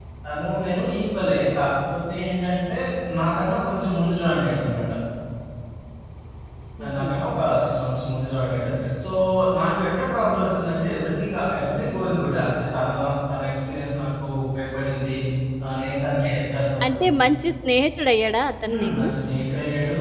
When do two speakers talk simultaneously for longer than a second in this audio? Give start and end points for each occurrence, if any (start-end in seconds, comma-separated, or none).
none